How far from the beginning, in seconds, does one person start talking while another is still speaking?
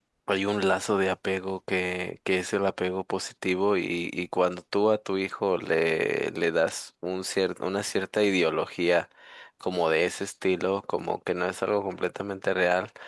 none

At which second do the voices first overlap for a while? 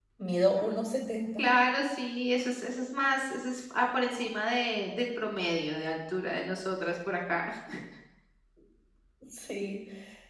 none

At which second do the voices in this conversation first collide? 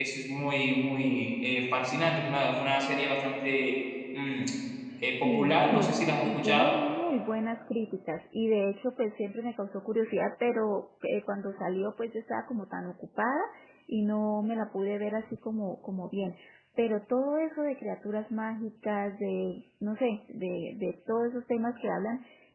5.1 s

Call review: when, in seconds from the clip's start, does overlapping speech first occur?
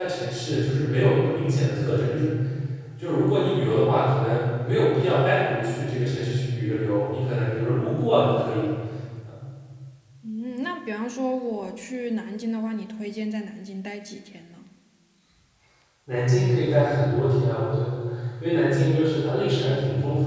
none

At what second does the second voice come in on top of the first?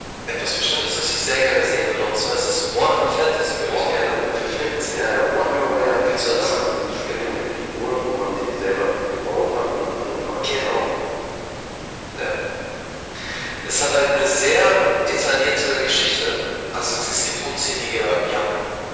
3.7 s

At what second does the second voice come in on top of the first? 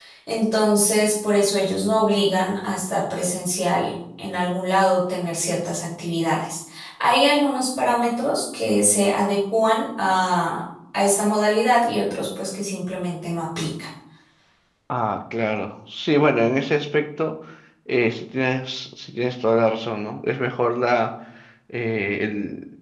none

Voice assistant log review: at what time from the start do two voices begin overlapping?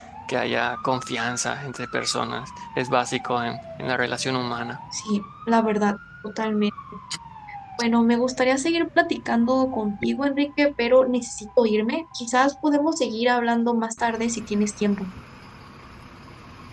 none

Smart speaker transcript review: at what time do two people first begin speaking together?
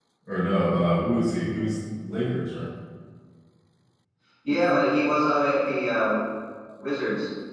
none

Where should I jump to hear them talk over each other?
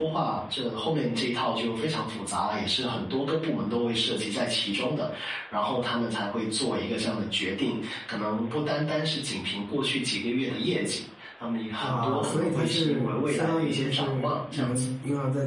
11.8 s

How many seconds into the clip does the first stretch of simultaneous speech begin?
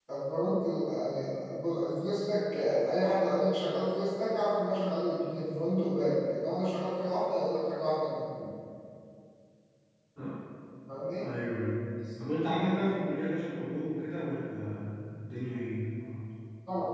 none

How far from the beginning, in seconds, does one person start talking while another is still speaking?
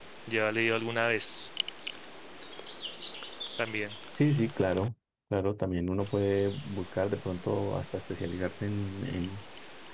none

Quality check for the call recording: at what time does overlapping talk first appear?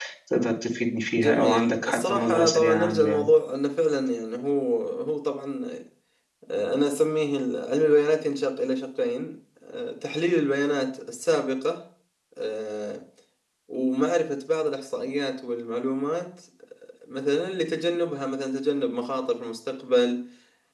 1.1 s

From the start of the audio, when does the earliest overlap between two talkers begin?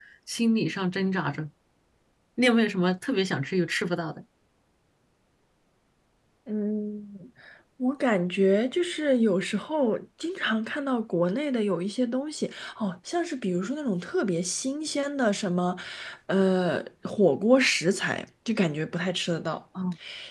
none

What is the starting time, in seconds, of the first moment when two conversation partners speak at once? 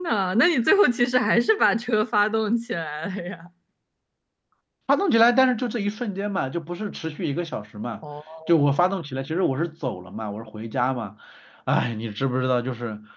none

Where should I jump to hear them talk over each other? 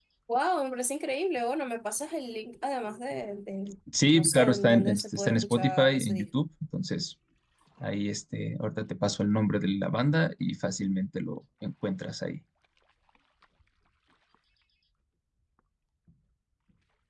3.9 s

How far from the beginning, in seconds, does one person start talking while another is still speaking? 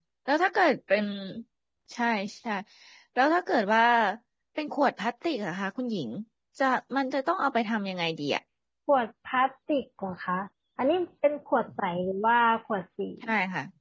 none

